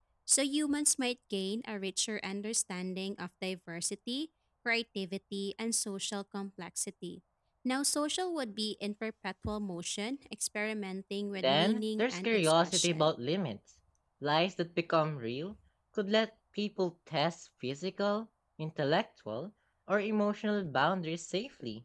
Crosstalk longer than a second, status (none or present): present